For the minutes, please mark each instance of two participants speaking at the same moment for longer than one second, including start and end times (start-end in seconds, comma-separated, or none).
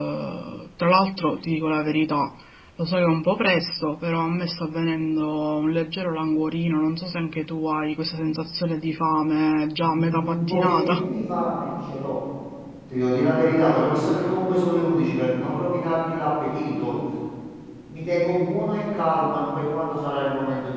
9.8-11.1